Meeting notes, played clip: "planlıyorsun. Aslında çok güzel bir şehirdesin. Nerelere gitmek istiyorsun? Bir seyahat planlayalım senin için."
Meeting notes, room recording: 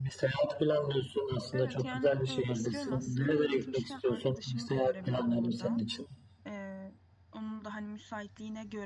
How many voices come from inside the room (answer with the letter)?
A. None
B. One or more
B